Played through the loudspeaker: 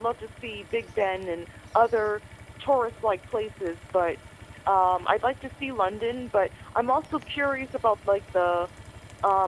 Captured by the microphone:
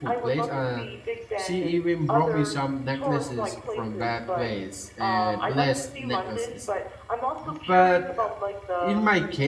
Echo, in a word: present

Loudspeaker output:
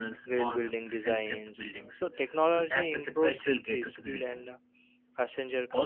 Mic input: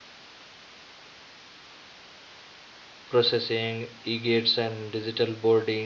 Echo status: none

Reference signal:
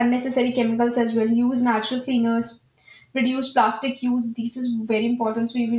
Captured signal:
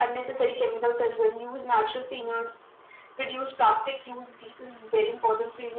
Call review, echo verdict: present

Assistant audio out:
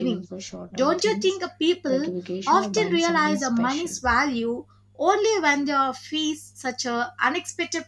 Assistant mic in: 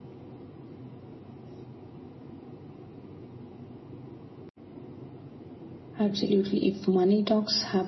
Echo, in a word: none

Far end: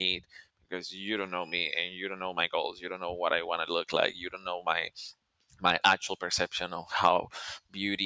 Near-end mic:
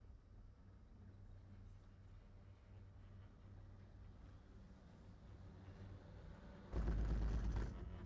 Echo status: none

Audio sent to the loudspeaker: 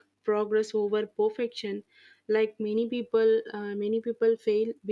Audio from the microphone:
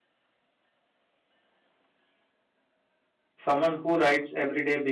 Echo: none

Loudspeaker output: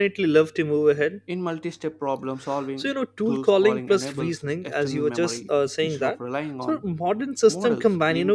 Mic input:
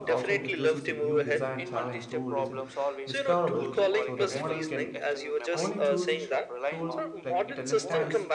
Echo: present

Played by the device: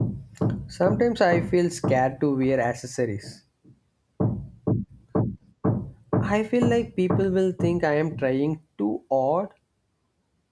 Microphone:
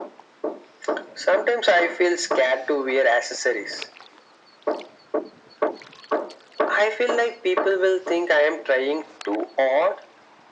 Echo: present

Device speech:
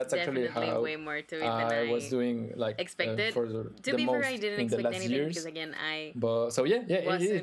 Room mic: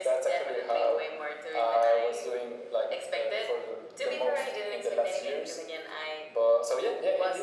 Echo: present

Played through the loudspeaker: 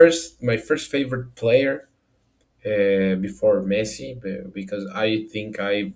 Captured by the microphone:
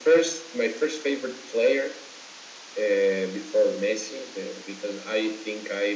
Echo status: present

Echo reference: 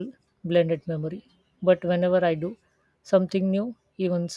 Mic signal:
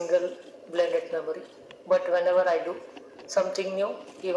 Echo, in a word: present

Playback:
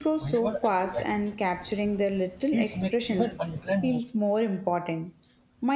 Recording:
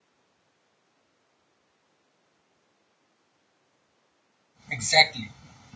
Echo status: none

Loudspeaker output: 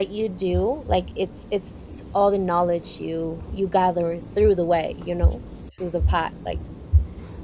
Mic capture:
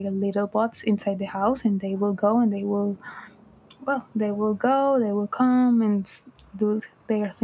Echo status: none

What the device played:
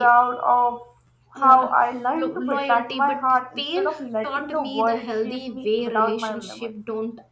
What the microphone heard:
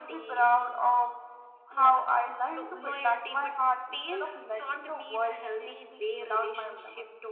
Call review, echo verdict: present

